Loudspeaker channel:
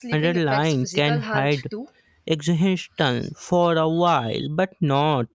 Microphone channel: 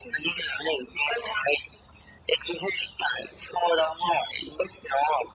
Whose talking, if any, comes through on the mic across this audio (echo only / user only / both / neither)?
echo only